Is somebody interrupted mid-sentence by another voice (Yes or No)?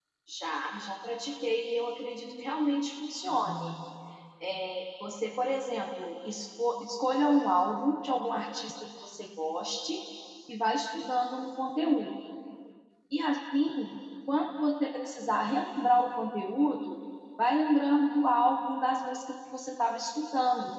No